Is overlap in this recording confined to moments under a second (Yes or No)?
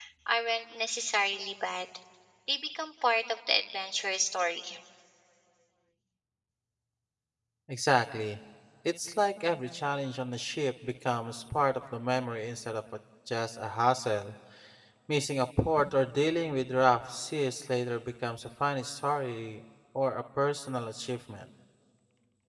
Yes